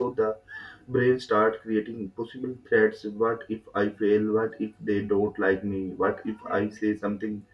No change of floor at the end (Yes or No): Yes